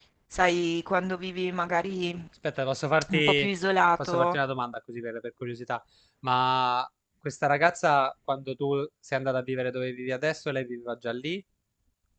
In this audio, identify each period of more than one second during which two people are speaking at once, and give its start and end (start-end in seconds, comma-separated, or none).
none